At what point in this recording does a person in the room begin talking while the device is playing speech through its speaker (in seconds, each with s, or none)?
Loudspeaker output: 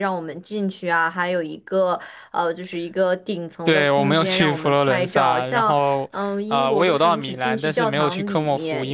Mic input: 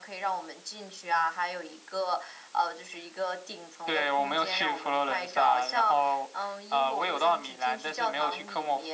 none